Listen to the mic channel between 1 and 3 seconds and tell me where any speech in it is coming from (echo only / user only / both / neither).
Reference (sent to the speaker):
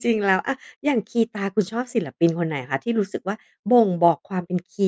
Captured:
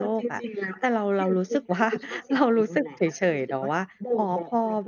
both